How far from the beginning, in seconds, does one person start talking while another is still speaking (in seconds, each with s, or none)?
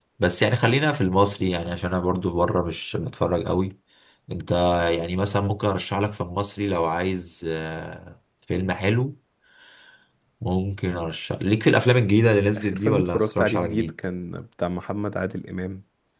12.6 s